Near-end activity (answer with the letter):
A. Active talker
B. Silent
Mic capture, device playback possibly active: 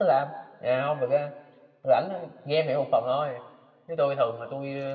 A